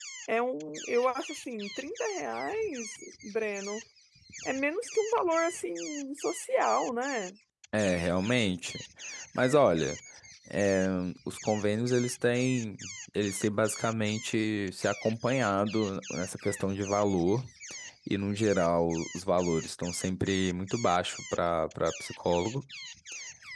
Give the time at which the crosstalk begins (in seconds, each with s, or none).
none